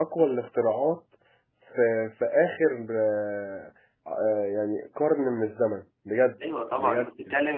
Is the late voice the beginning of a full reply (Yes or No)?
Yes